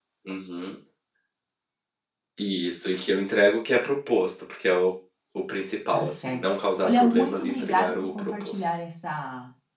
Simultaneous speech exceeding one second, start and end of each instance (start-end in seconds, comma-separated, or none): 6.8-8.6